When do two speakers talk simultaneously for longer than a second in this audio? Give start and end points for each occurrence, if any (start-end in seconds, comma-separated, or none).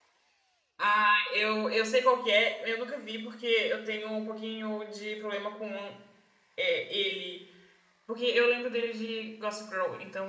none